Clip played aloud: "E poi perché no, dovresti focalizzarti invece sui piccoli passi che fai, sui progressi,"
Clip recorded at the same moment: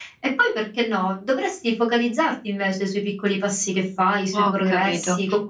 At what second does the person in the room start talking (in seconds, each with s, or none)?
4.3 s